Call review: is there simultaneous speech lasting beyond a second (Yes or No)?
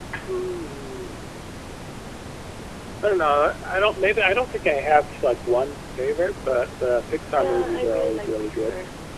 Yes